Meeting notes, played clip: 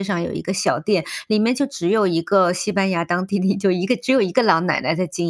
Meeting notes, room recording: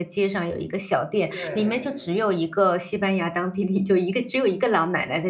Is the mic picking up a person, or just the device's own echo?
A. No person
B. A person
B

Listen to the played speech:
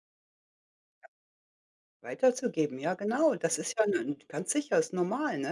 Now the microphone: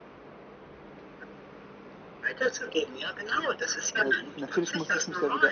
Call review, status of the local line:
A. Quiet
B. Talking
B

